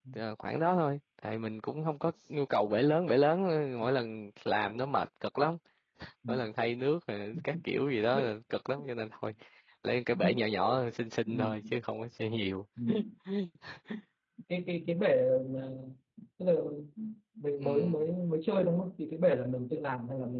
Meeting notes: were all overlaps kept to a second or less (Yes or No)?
Yes